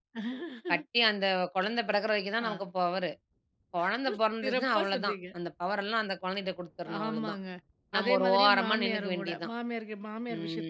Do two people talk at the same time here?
Yes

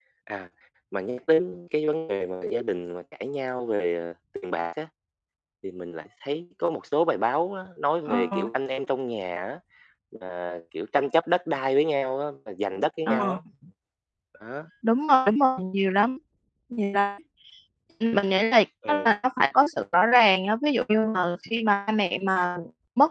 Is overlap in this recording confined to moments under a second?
Yes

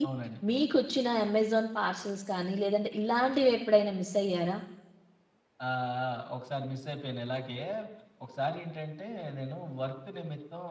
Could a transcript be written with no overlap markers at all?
Yes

